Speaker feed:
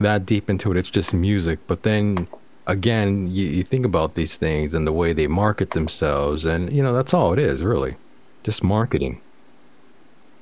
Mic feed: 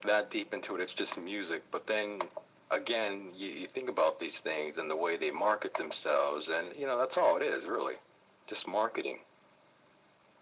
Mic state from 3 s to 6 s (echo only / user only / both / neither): echo only